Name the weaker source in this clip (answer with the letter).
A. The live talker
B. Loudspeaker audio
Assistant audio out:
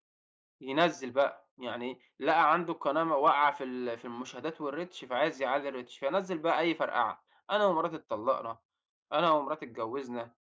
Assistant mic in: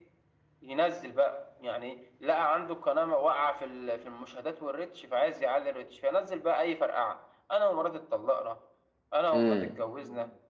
B